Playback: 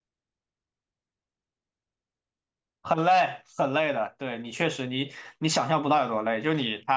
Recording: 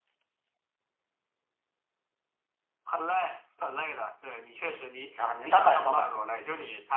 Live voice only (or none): 啊，你是单板双板？